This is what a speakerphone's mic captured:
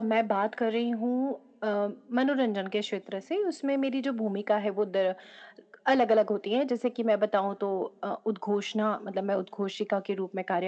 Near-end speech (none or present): none